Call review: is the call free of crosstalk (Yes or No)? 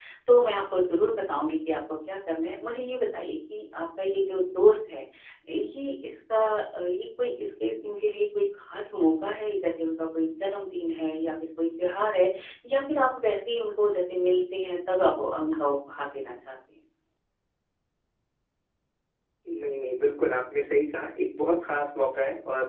Yes